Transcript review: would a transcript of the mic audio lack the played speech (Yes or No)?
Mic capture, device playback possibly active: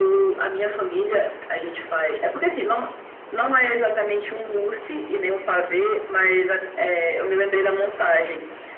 No